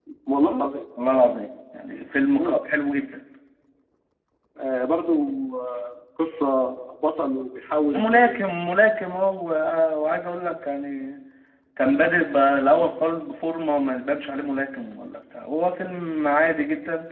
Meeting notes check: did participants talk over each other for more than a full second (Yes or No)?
No